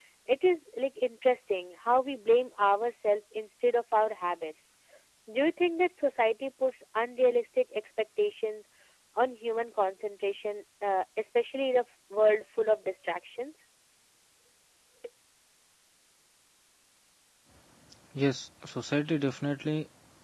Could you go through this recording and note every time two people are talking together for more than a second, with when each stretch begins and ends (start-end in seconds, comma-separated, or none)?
none